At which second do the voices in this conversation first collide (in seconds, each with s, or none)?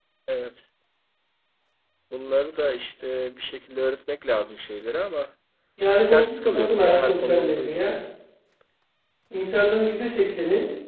6.0 s